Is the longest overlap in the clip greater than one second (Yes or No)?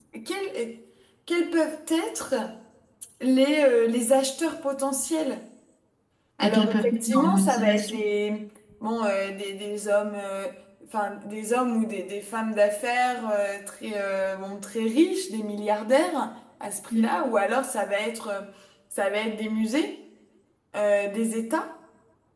Yes